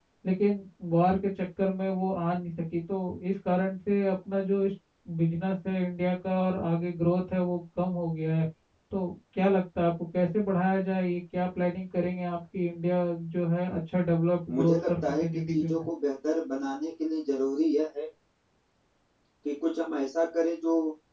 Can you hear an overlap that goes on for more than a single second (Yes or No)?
Yes